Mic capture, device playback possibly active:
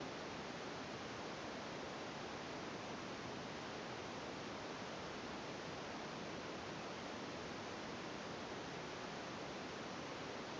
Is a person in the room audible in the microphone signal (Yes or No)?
No